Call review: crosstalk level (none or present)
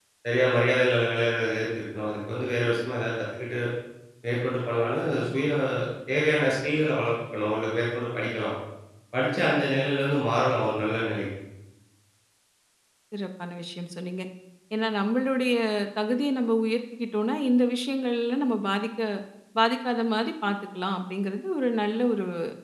none